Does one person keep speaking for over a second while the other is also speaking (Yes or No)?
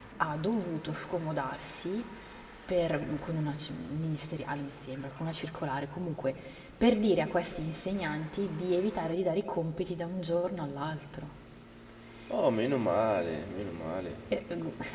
No